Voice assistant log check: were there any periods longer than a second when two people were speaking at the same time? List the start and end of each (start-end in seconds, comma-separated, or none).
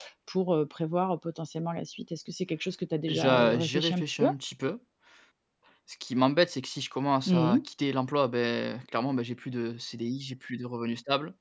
3.1-4.3